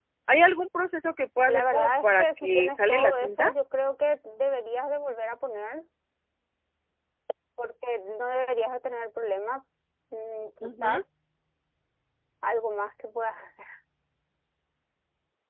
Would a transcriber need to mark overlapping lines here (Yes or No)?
Yes